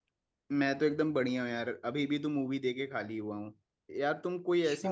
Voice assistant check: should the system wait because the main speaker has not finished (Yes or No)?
Yes